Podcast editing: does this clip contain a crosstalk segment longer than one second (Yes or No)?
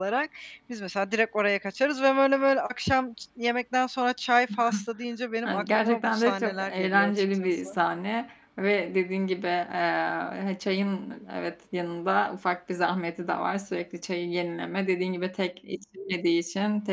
Yes